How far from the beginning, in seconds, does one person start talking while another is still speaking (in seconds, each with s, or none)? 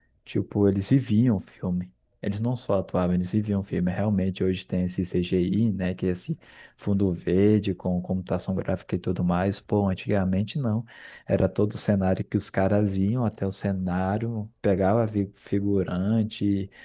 none